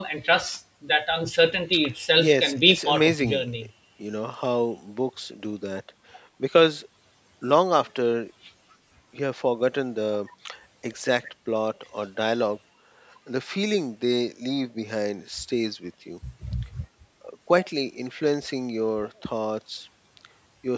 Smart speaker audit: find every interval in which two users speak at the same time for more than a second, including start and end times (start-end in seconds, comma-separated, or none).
2.2-3.4